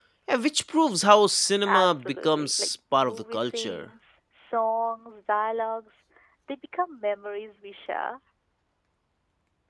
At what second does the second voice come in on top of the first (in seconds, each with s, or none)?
1.6 s